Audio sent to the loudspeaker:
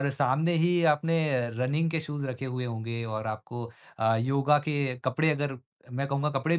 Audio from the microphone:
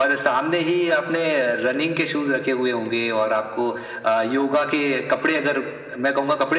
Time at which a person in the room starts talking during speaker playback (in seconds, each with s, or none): none